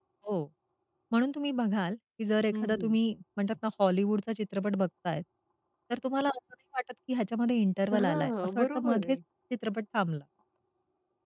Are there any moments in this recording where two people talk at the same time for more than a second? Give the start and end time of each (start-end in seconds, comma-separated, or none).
7.9-9.2